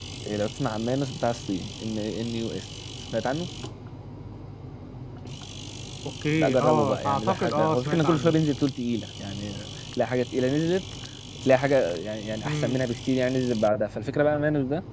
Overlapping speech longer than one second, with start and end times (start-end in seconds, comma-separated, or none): 6.4-8.4